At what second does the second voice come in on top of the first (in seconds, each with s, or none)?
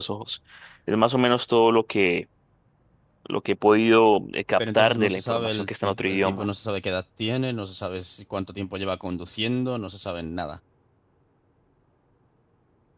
4.6 s